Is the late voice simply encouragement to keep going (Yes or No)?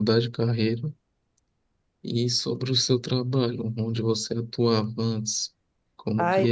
No